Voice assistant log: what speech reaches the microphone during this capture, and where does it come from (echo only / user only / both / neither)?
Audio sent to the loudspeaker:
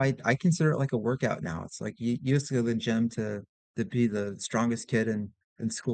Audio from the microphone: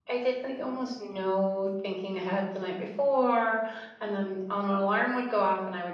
user only